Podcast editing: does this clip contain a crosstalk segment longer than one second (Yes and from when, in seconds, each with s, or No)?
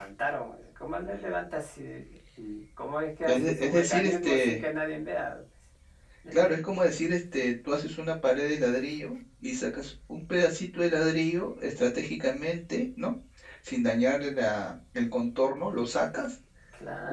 Yes, from 3.3 s